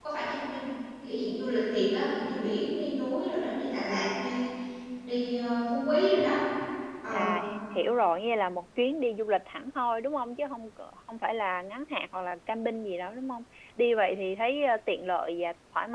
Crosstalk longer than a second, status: none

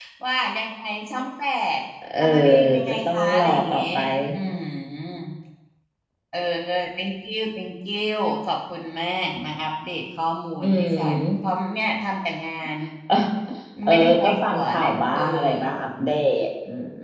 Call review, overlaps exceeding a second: present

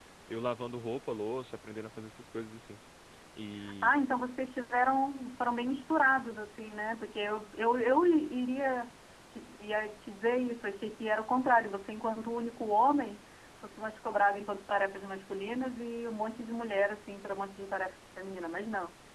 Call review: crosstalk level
none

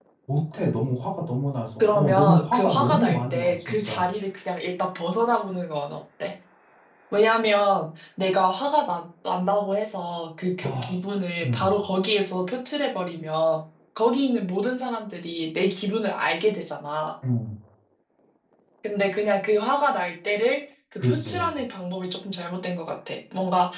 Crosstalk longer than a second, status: present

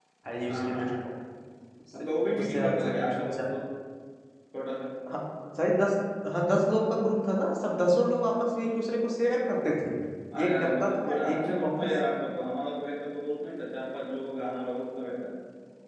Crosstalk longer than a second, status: present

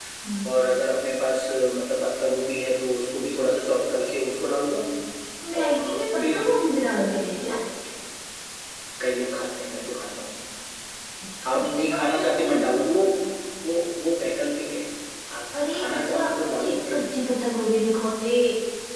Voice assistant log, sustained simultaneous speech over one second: present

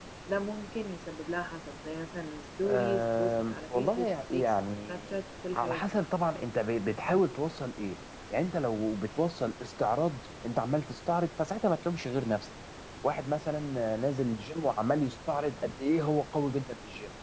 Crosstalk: present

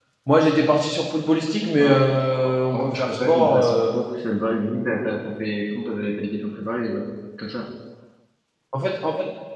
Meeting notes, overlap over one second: present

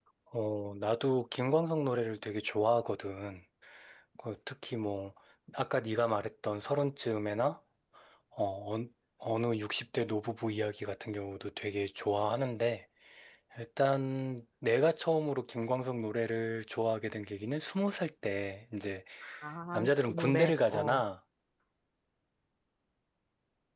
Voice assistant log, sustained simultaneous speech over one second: present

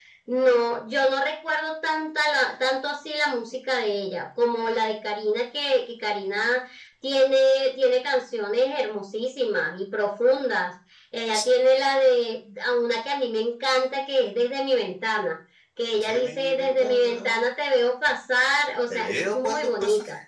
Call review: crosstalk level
present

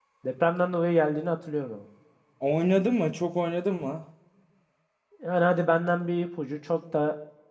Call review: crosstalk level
none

